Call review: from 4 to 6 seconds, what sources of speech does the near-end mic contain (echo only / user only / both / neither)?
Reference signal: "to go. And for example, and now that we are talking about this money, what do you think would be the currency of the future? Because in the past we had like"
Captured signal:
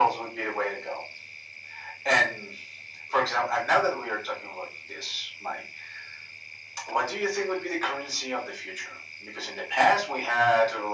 echo only